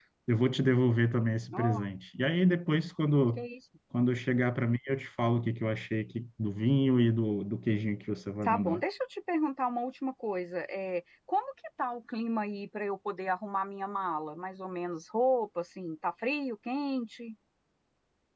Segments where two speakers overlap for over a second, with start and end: none

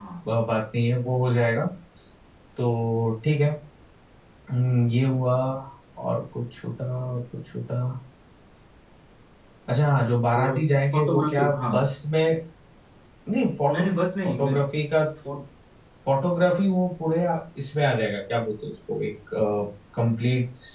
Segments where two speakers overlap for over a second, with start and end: 10.4-11.8

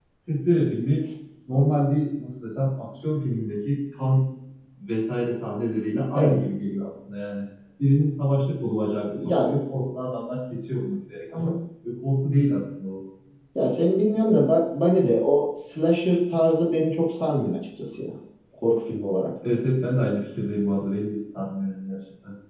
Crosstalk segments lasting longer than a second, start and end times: none

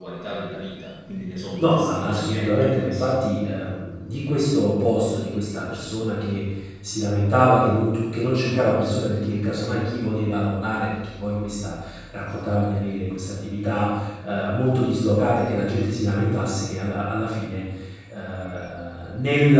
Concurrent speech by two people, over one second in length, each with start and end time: 1.6-3.1

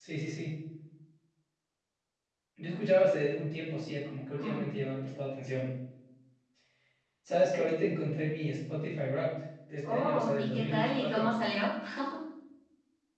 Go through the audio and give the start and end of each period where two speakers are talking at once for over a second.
9.8-11.3

